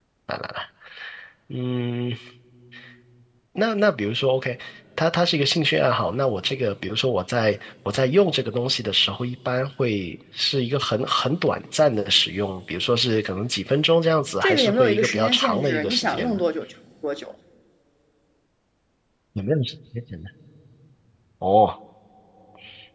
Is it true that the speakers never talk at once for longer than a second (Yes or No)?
No